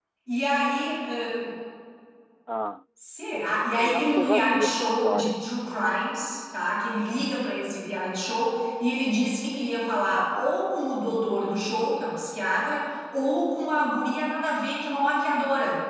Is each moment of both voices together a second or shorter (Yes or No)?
No